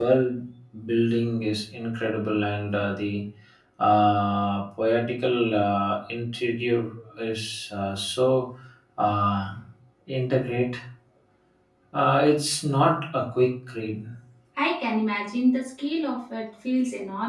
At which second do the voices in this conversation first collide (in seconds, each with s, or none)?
none